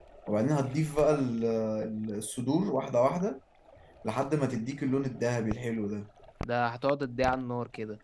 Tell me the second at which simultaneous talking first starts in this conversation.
none

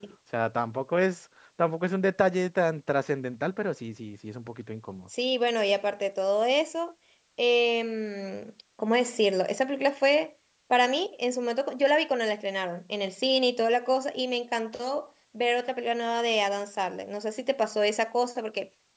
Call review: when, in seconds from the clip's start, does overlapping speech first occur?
none

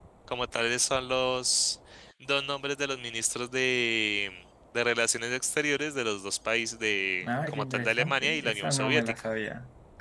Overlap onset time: 7.2 s

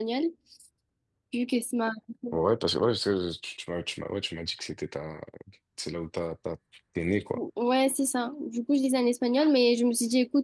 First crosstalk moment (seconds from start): none

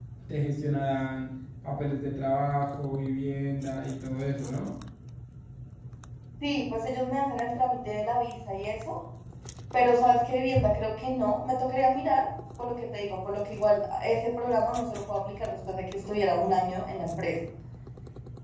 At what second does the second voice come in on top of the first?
none

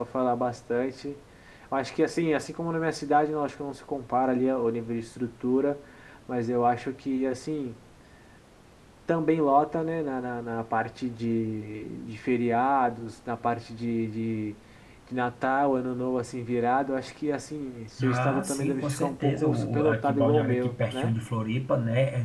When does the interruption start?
18.0 s

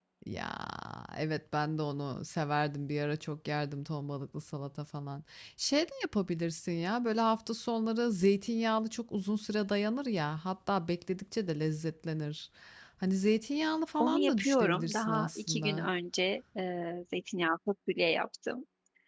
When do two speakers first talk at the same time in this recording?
14.0 s

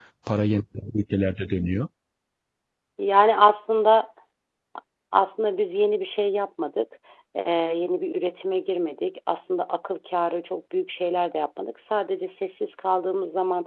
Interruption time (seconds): none

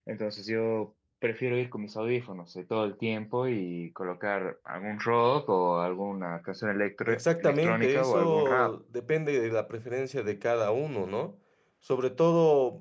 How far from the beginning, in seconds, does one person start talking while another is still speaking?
7.1 s

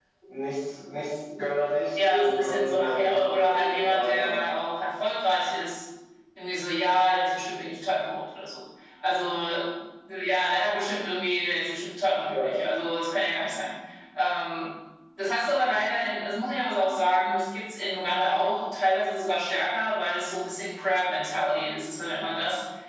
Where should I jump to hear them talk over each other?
1.9 s

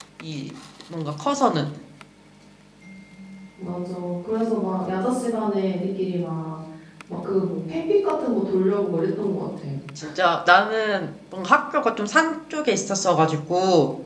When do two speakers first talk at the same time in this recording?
none

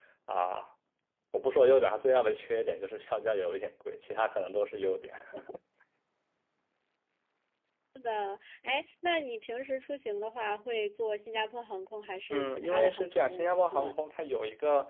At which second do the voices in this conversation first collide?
12.3 s

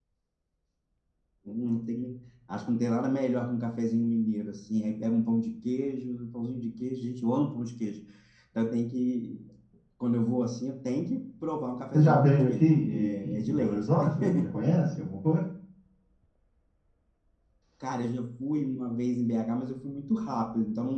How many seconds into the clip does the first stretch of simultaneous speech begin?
11.9 s

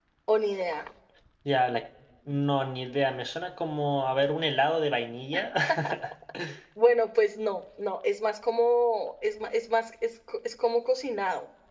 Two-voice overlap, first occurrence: none

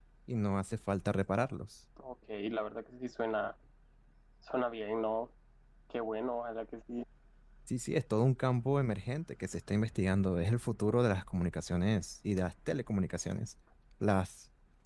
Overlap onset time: none

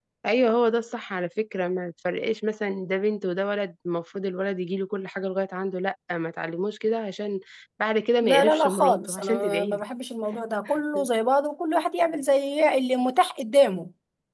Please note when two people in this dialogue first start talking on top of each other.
8.2 s

